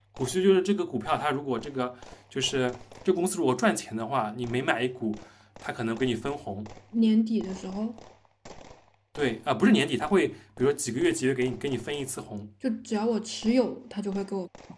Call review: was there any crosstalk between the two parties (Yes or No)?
No